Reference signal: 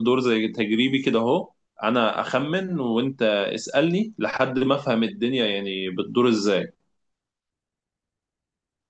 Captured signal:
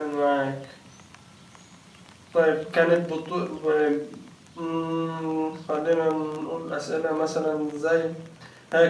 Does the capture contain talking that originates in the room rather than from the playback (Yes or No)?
Yes